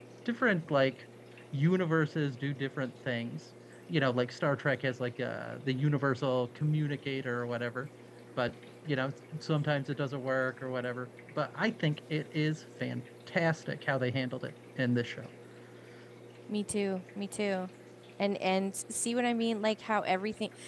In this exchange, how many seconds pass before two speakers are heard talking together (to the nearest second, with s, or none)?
none